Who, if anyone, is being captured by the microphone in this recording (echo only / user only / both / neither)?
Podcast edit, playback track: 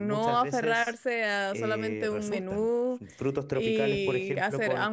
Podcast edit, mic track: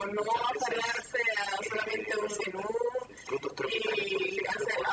echo only